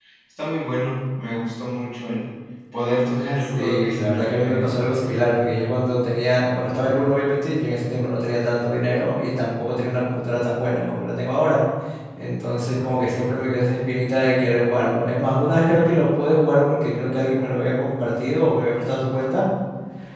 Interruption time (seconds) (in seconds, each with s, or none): 3.6 s